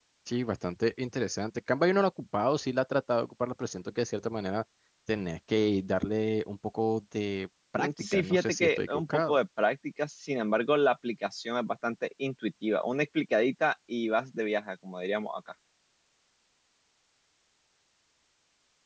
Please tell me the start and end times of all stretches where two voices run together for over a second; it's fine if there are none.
7.8-9.4

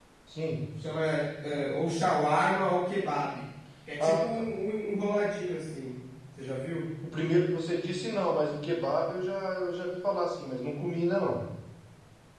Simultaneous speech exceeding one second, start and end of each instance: none

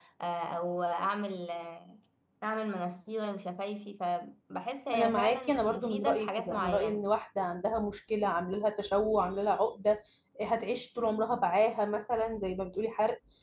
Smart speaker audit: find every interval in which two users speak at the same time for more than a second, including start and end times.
4.9-7.0

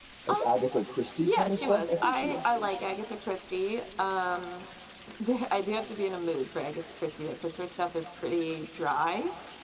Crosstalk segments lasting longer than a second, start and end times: 1.2-2.8

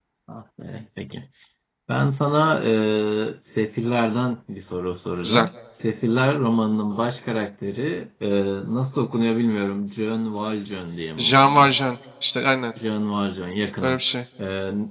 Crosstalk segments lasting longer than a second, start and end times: none

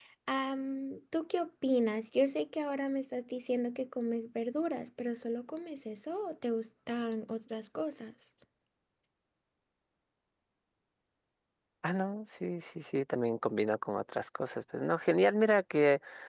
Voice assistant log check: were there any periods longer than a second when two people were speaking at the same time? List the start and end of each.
none

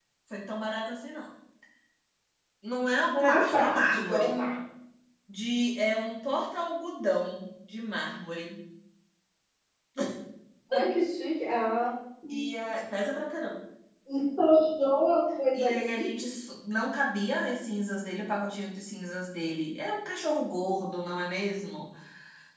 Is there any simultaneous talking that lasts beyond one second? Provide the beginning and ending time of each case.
3.0-4.3

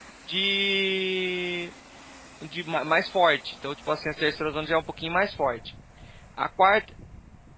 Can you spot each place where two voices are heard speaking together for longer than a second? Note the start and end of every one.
none

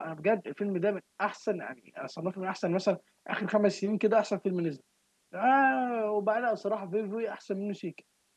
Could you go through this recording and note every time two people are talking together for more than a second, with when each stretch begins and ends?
none

